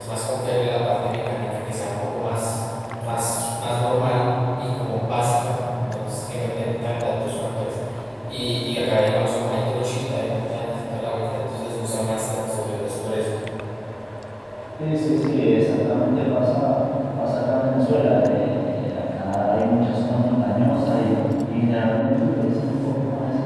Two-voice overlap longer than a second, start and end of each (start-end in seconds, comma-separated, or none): none